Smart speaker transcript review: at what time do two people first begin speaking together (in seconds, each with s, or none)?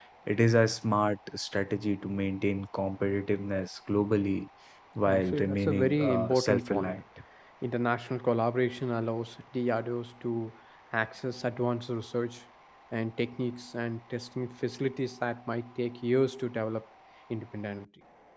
5.1 s